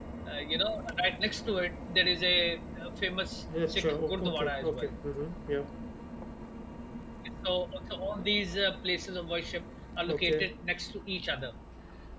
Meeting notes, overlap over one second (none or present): present